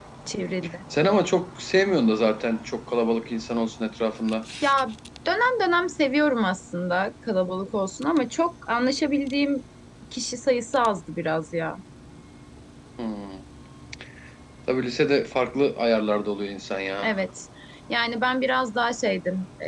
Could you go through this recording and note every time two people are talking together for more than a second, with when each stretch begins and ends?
none

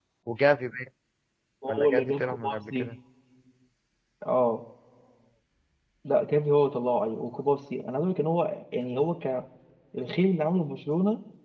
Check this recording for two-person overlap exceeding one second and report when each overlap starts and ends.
1.7-2.9

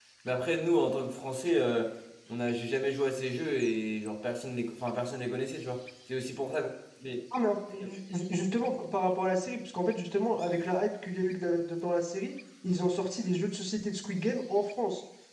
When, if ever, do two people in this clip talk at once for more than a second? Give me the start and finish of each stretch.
none

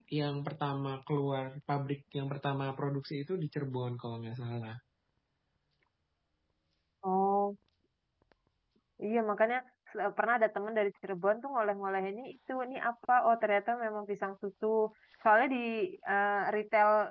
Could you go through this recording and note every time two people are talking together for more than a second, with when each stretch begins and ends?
none

